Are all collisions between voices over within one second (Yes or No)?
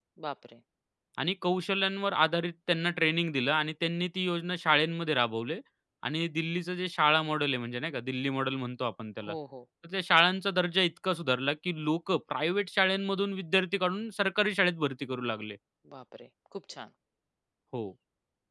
Yes